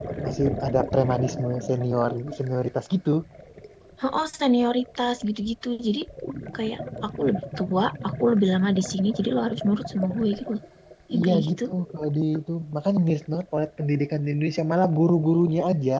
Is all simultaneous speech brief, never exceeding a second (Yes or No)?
Yes